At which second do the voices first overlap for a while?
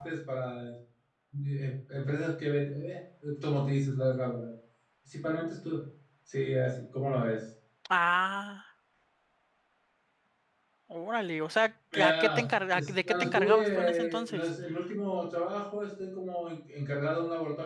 11.9 s

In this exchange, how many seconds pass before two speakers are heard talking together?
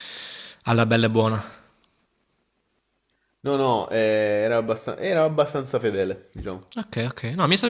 none

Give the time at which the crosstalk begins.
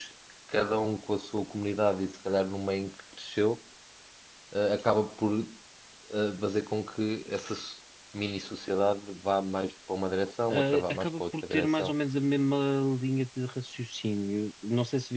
10.5 s

